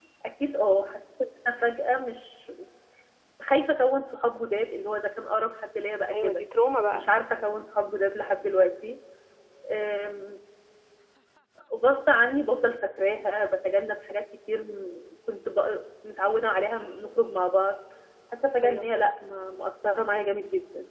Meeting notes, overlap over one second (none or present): none